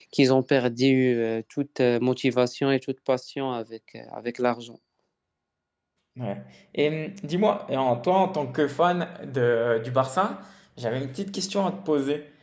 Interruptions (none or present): none